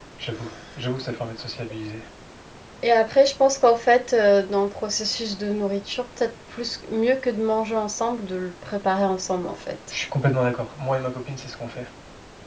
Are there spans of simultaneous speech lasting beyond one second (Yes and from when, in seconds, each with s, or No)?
No